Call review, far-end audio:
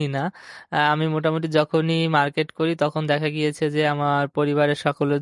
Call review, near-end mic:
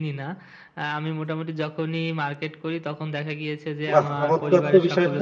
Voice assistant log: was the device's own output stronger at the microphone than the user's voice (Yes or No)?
No